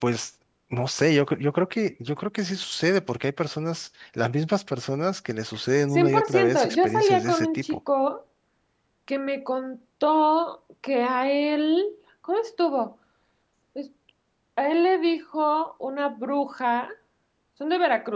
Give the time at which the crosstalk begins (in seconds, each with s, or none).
5.9 s